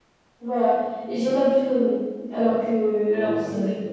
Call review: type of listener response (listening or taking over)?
listening